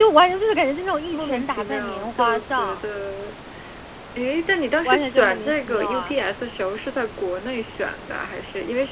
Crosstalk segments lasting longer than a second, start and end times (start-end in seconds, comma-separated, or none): 1.1-2.8, 4.8-6.1